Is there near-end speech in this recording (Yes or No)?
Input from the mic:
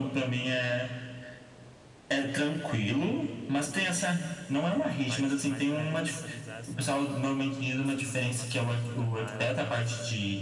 Yes